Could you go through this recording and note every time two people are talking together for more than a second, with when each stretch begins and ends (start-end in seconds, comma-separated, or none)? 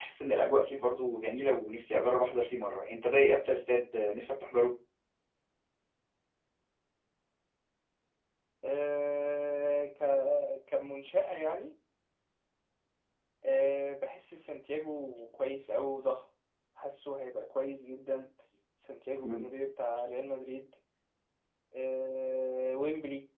none